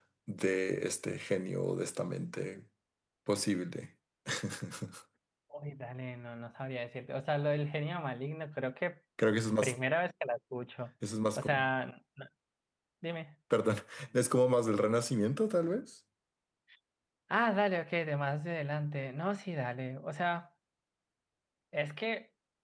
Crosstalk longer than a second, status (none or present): none